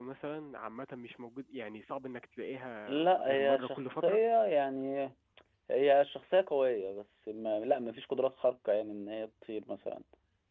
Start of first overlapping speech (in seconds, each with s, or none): 2.9 s